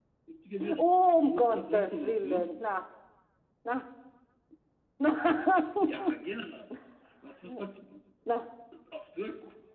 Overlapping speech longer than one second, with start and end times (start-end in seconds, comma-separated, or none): 1.3-2.6